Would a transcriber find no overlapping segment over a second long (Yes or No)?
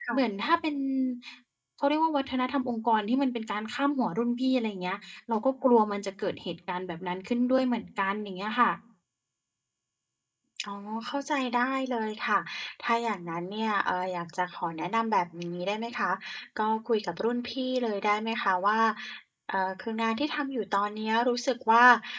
Yes